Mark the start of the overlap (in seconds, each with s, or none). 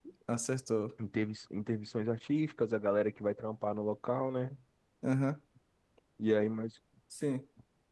none